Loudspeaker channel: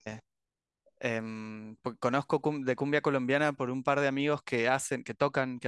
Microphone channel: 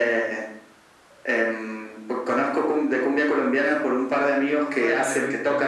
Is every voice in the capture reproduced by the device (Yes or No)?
No